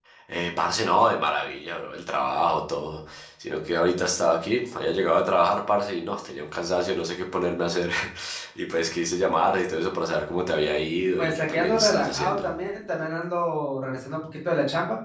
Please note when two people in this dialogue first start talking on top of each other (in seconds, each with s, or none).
11.2 s